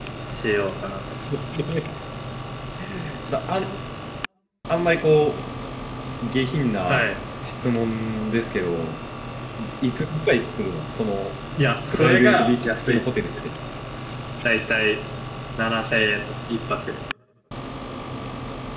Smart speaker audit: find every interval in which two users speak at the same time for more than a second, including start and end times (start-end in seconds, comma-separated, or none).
11.9-13.3